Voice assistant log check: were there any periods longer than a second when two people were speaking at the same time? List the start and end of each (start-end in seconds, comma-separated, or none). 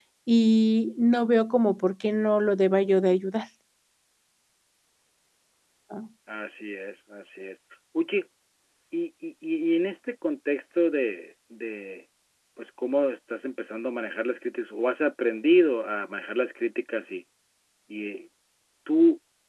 none